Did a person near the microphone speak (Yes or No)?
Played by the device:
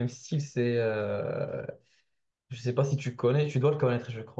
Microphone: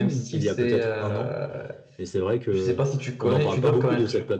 Yes